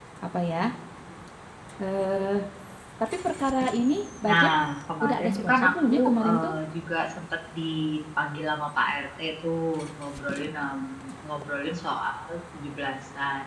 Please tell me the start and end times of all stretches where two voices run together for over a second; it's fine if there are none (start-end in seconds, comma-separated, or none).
5.0-6.5